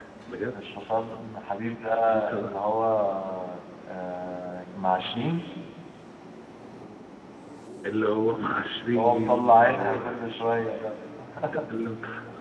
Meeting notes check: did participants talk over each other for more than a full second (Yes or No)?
Yes